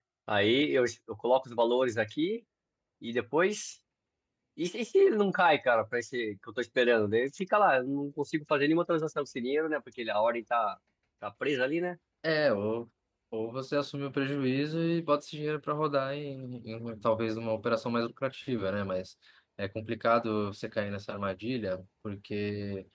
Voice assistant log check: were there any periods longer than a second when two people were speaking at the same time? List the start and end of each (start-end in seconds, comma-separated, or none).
none